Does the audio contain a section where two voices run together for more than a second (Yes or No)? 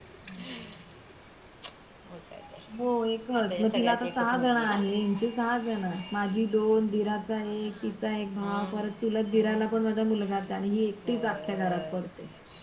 Yes